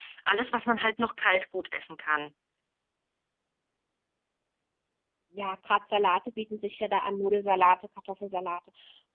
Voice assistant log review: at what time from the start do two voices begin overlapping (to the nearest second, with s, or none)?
none